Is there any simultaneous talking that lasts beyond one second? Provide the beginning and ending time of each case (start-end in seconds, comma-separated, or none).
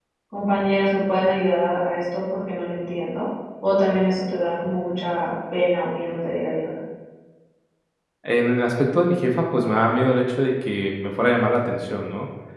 none